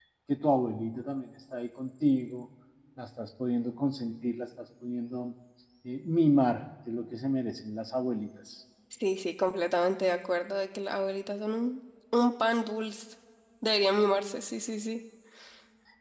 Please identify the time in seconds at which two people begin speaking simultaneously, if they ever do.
none

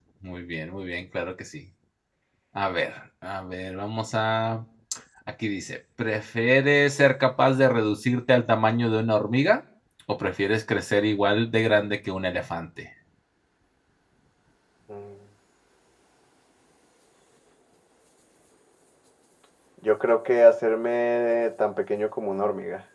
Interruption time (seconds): none

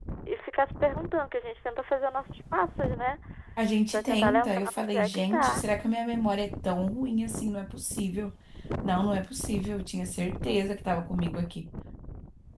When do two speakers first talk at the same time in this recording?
3.9 s

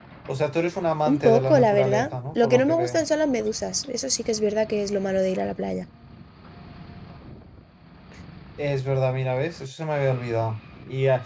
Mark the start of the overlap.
1.1 s

